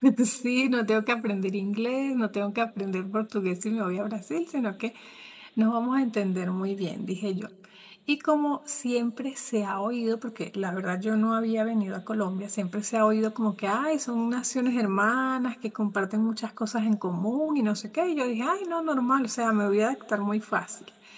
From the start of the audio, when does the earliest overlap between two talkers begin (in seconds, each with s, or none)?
none